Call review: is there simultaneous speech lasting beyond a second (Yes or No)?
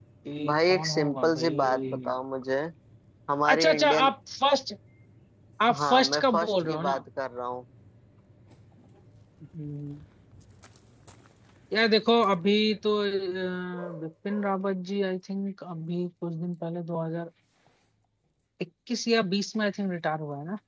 Yes